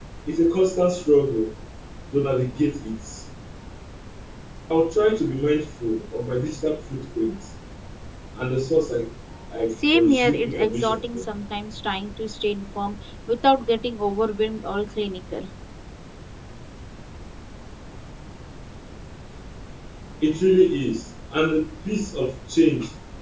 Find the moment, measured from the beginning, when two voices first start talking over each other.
10 s

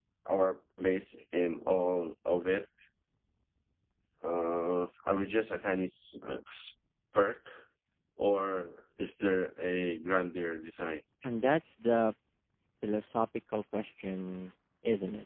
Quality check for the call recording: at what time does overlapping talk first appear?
none

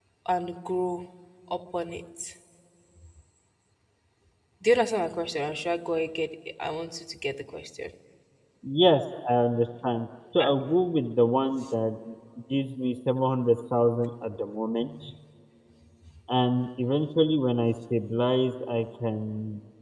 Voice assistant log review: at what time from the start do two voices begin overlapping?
none

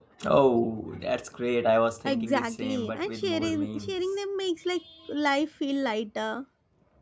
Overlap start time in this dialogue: 2 s

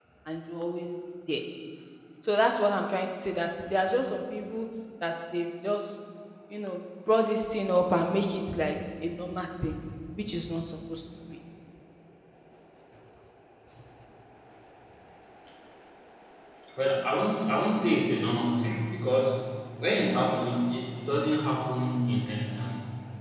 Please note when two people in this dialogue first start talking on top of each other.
none

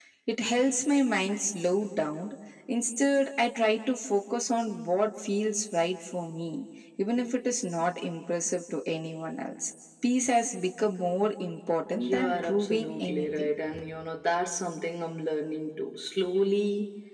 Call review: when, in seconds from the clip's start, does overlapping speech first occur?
12 s

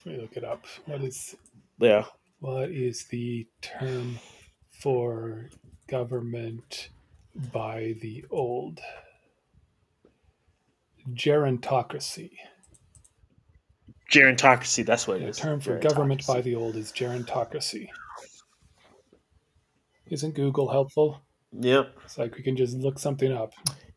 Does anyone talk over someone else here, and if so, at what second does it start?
15 s

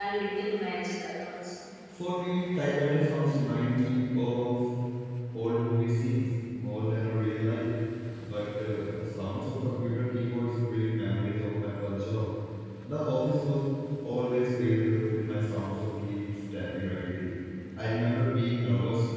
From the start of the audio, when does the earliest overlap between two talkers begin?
none

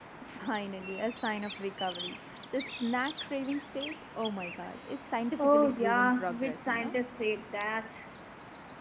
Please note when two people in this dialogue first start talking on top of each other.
5 s

